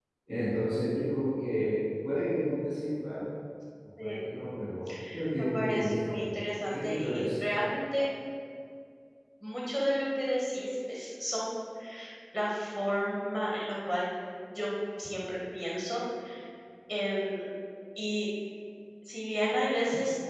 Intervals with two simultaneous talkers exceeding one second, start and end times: 5.4-7.4

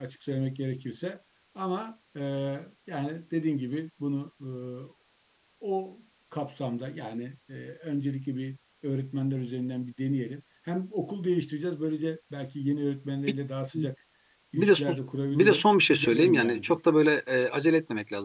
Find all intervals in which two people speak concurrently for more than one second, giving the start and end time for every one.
15.3-16.8

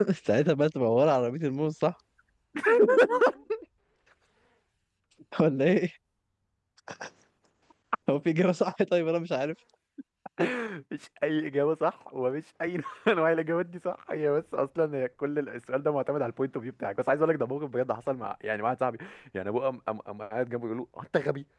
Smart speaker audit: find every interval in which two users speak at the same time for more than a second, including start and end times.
none

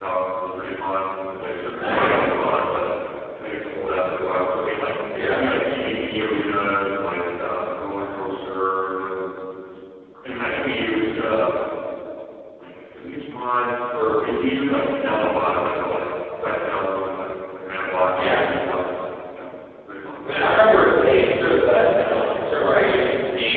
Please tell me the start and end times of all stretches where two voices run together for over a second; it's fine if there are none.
none

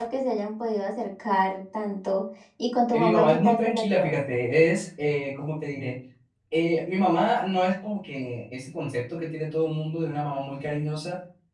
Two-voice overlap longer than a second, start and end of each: 2.9-4.1

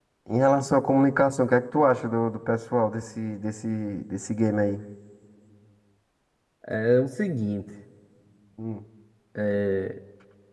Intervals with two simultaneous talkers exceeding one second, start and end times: none

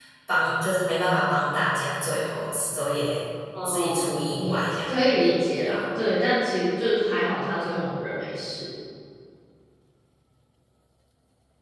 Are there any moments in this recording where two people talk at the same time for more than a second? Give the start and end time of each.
3.6-4.9

